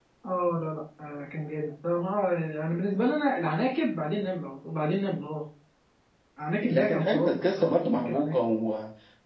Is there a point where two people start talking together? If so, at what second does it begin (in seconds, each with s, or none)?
6.6 s